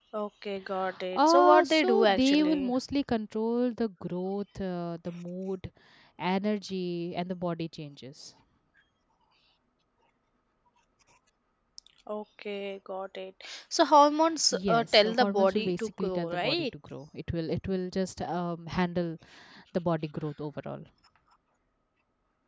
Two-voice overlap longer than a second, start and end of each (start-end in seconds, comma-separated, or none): 1.1-2.7, 14.5-16.6